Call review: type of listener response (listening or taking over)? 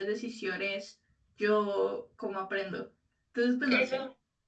taking over